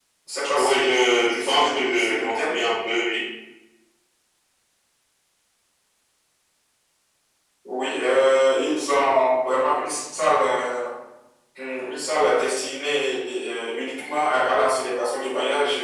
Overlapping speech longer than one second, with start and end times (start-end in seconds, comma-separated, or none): 0.6-2.6